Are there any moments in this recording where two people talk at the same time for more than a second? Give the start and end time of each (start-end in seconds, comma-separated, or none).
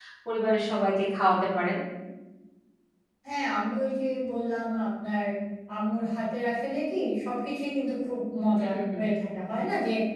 none